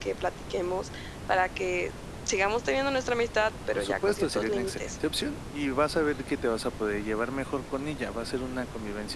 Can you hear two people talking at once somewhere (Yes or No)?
Yes